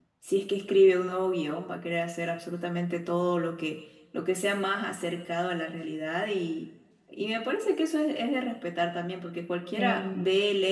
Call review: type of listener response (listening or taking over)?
listening